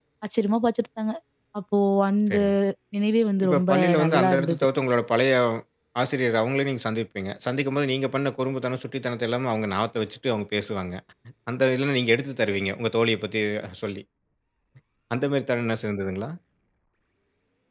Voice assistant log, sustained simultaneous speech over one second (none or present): present